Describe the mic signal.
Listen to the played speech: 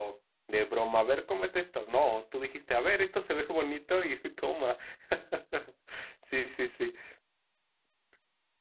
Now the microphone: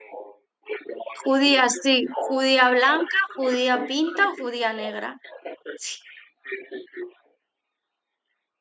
both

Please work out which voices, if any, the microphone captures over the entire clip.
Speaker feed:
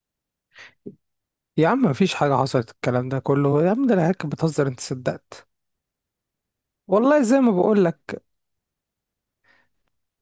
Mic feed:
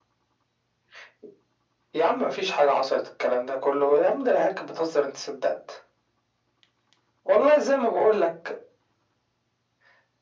echo only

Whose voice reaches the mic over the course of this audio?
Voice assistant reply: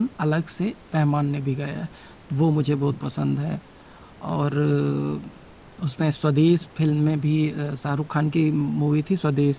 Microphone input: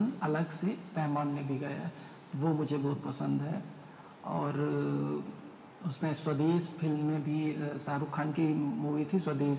echo only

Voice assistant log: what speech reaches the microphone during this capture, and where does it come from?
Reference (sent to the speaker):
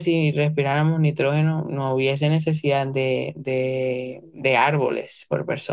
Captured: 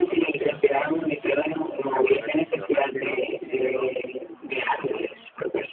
both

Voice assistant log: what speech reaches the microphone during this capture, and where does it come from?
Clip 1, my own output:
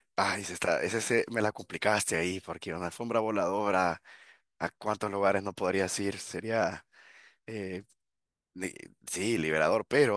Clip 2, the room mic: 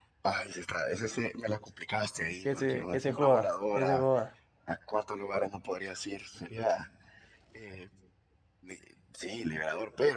both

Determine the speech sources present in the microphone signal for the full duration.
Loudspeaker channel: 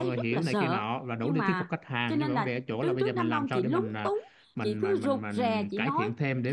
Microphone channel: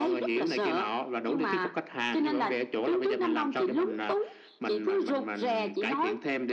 echo only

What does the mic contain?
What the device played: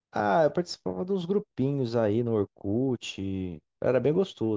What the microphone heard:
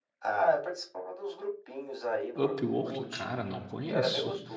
both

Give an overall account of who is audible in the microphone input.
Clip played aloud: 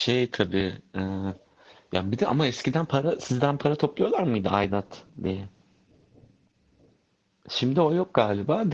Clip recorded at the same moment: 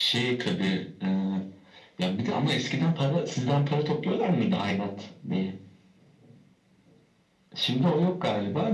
echo only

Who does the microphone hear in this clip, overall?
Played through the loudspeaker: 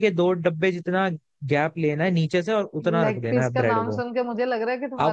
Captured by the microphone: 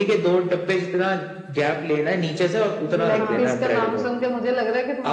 both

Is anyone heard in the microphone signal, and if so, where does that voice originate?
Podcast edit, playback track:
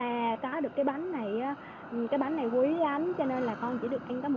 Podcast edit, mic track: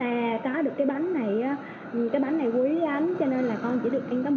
echo only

